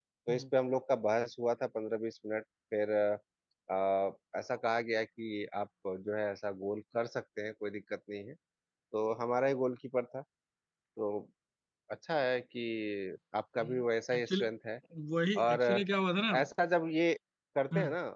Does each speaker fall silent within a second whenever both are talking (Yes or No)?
Yes